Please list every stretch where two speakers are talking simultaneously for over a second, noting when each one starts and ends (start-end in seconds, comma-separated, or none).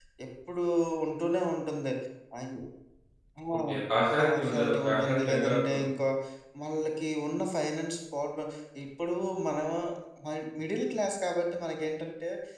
4.2-5.8